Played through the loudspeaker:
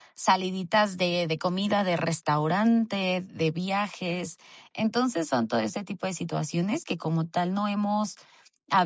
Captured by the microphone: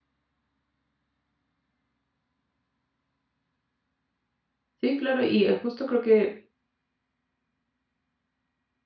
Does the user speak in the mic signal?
Yes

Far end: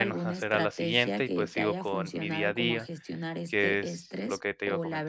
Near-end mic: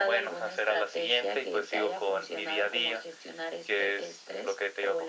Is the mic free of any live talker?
Yes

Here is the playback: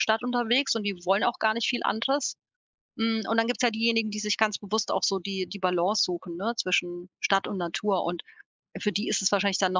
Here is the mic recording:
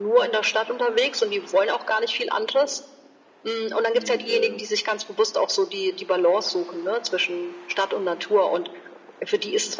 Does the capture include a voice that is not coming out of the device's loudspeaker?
Yes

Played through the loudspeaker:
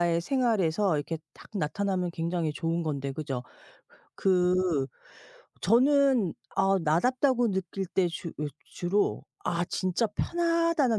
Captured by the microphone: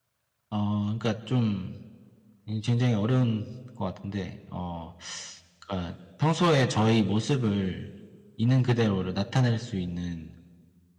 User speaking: Yes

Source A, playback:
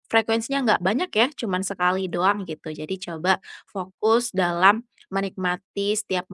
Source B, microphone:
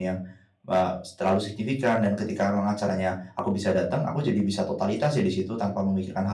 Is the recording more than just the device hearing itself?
Yes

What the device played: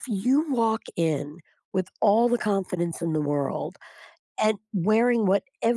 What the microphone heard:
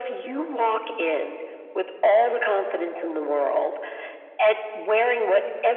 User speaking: No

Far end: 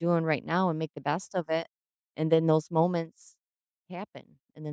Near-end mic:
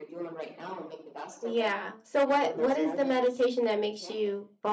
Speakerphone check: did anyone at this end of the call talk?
Yes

